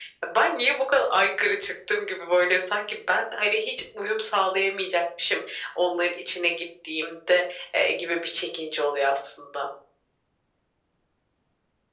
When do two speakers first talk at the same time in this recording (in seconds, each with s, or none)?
none